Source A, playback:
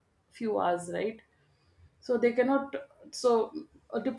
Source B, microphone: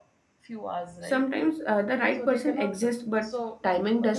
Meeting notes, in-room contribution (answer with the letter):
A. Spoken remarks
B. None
A